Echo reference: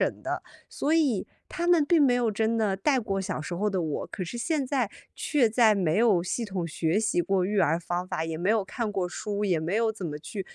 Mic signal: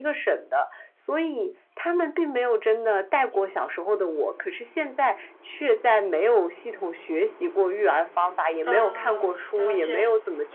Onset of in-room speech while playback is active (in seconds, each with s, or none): 8.6 s